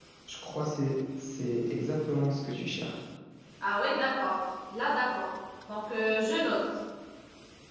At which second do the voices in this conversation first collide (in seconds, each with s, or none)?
none